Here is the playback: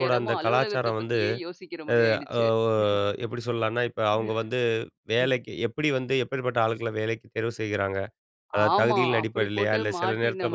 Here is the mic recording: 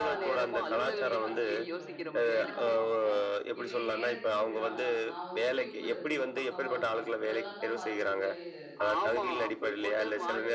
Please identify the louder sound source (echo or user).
echo